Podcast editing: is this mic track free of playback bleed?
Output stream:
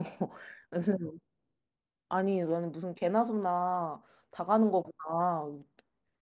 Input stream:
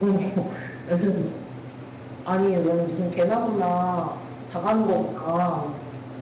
No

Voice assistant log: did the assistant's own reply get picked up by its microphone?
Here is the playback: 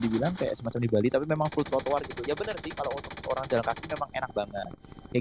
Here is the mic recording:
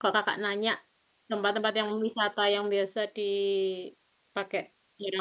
No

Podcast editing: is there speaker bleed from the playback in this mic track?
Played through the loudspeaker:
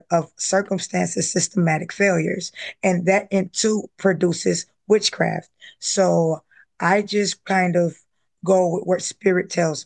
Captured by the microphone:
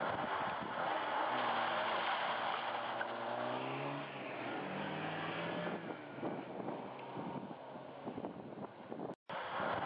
No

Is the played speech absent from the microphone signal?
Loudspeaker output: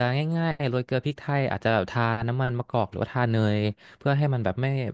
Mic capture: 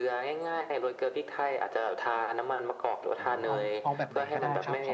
No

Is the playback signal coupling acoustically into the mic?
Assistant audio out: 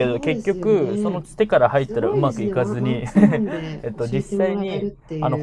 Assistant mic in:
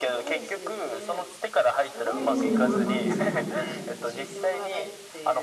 Yes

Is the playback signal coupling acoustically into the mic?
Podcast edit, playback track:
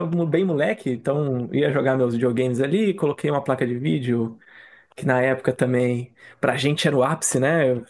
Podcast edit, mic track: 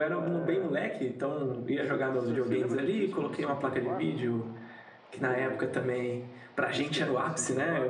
Yes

